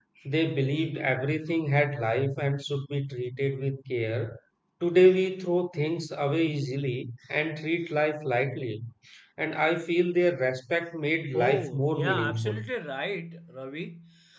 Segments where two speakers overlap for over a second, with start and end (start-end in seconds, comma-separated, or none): 11.3-12.7